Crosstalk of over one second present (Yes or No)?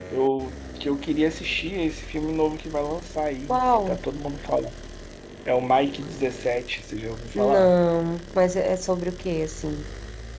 No